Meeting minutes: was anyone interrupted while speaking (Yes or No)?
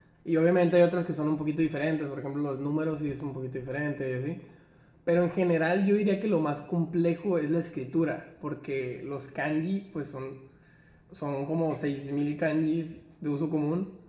No